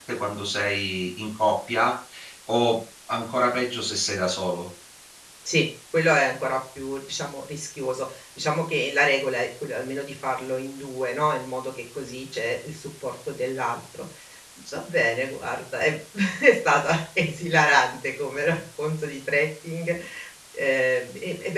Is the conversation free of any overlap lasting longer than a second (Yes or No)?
Yes